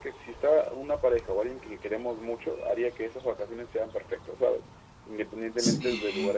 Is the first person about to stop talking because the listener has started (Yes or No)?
No